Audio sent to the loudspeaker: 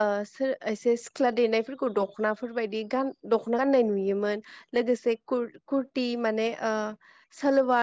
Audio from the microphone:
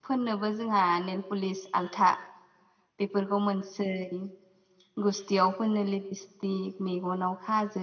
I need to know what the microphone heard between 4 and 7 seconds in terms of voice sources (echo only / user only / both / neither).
user only